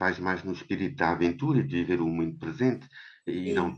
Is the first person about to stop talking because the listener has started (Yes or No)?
No